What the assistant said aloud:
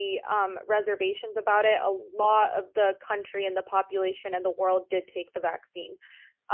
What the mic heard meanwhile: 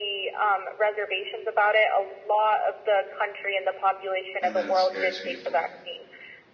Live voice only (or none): And then it scares people.